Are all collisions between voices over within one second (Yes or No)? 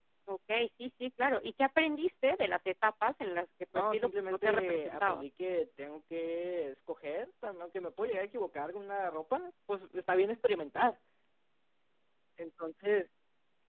No